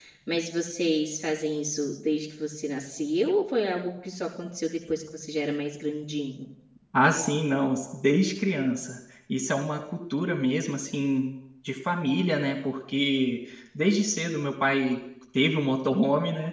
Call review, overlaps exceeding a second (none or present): none